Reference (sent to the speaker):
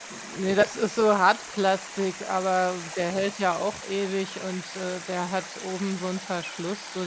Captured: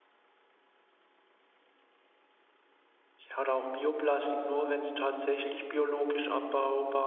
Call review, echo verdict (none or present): none